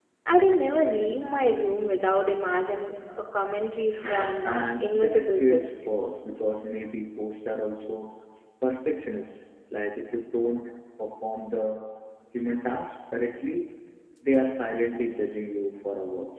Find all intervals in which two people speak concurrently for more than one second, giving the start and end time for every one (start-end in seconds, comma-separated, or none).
4.4-5.7